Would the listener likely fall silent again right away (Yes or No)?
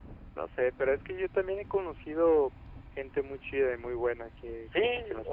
No